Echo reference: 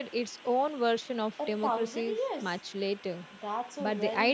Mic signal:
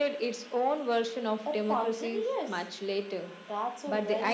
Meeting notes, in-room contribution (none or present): none